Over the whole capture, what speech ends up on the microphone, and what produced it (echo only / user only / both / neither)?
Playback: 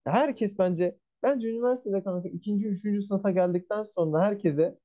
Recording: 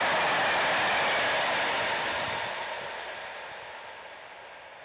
neither